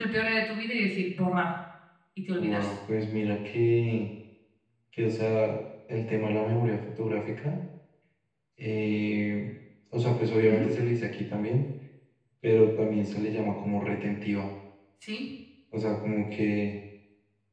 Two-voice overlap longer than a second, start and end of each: none

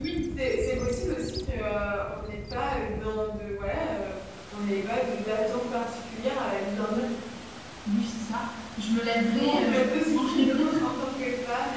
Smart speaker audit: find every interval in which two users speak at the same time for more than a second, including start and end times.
9.3-10.8

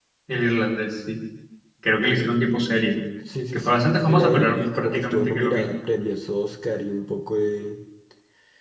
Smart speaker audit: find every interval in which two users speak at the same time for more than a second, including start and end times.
3.5-5.7

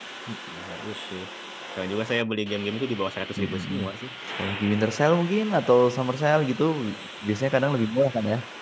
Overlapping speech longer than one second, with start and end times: none

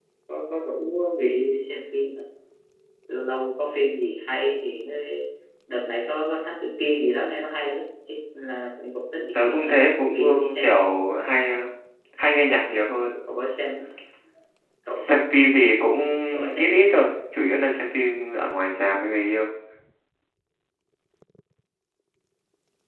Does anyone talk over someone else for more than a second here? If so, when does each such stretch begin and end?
9.3-10.8

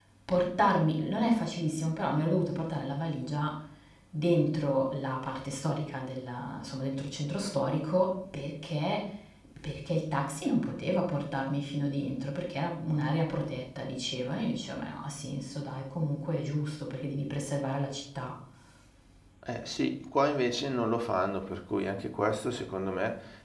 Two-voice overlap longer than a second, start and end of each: none

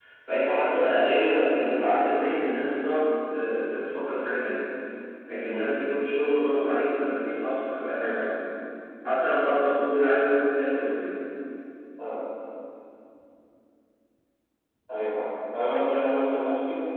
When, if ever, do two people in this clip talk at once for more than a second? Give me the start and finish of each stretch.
none

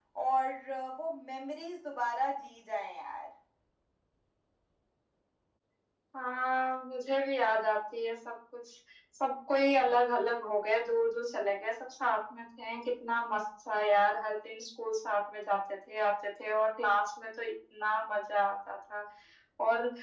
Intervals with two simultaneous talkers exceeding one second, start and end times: none

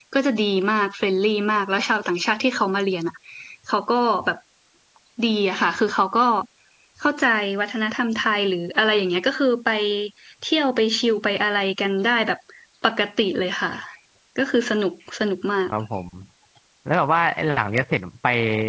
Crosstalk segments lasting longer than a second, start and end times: none

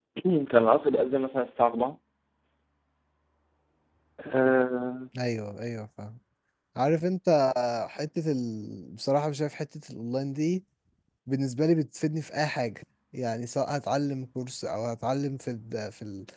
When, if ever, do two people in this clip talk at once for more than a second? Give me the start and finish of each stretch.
none

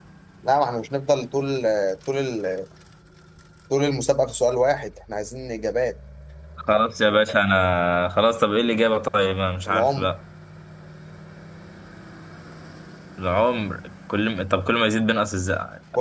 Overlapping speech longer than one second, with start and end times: none

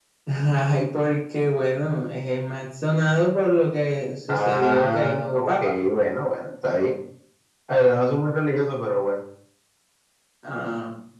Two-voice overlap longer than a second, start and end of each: 4.3-5.7

